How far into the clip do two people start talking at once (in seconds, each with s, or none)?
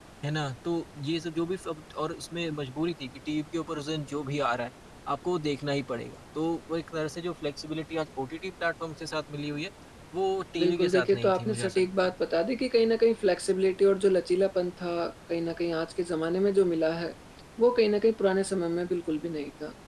10.6 s